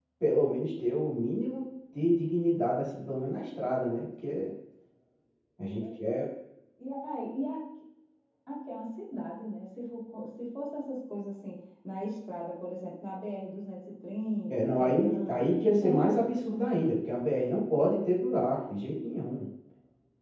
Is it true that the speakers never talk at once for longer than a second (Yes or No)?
No